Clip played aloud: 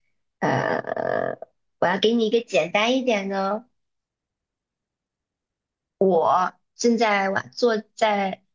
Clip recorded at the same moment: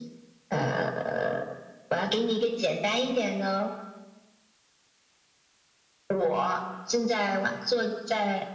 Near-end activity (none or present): none